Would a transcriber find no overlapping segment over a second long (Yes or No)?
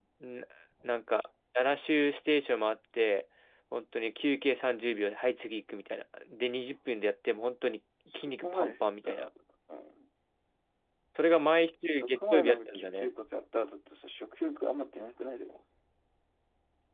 No